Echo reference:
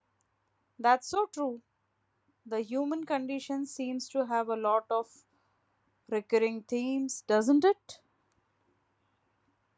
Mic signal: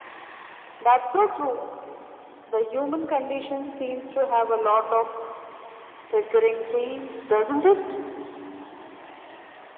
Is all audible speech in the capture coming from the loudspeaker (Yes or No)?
Yes